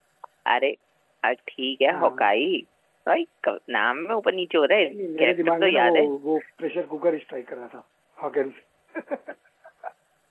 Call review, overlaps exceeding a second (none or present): present